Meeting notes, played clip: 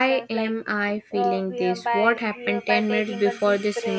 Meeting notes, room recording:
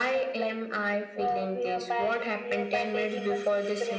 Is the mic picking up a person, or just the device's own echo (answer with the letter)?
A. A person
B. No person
B